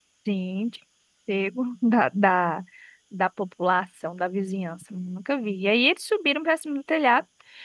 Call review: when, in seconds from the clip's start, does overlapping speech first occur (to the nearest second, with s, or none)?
none